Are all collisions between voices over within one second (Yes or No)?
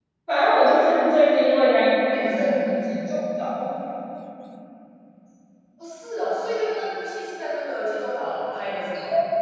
Yes